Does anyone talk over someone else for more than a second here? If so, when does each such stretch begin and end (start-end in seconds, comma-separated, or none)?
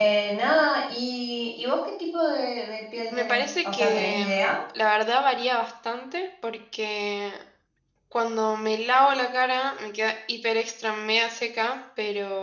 3.1-4.5